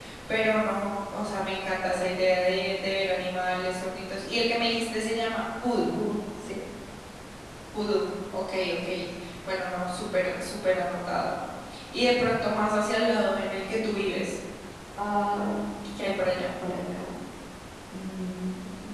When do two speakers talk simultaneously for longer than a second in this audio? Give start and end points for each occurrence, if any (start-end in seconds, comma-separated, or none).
none